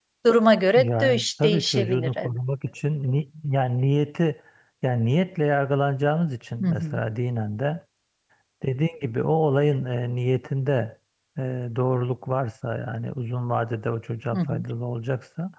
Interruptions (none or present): present